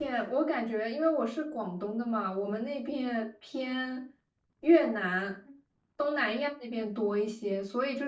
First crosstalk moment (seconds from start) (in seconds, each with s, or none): none